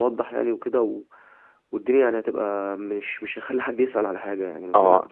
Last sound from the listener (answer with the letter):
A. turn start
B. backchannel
A